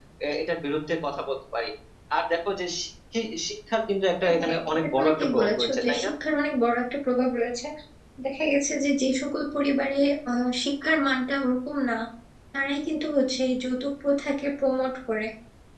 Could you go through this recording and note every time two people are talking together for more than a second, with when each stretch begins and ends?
4.2-6.1

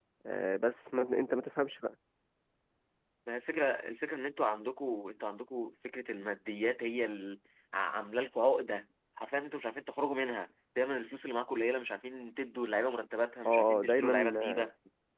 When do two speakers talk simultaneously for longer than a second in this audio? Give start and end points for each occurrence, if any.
13.5-14.7

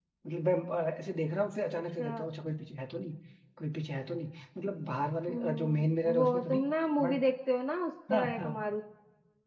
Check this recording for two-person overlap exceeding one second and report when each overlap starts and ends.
5.3-6.6

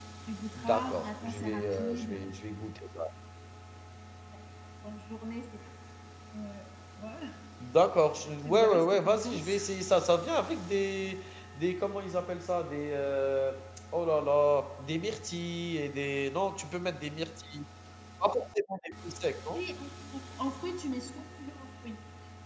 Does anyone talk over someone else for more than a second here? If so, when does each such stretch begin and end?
0.5-2.2, 8.4-9.7

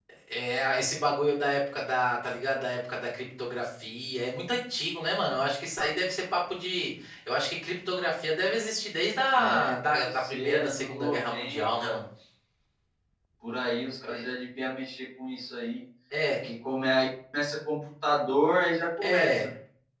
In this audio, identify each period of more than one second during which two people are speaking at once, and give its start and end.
9.4-12.0

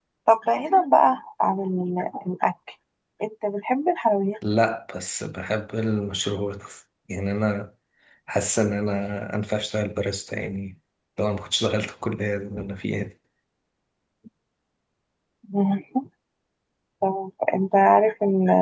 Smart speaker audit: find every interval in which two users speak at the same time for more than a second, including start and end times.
none

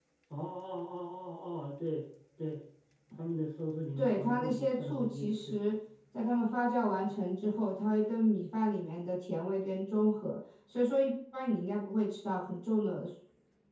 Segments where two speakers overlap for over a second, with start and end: 4.0-5.6

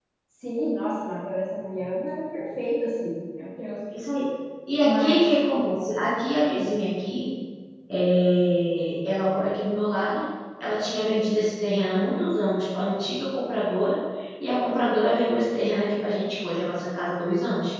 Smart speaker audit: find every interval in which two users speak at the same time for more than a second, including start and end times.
none

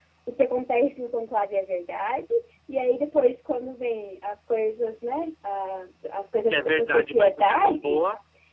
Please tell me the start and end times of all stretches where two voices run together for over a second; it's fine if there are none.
6.5-8.0

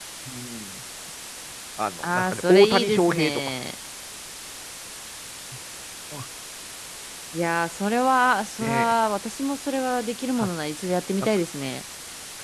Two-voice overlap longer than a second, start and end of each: 2.2-3.4

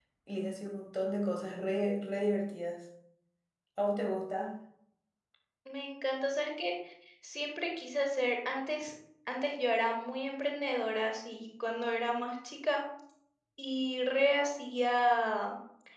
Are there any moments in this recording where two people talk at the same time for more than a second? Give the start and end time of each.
none

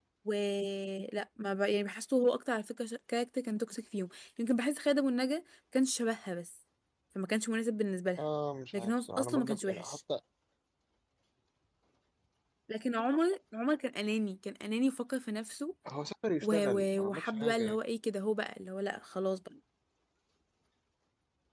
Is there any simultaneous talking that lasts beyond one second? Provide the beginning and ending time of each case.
8.7-10.0, 16.4-17.8

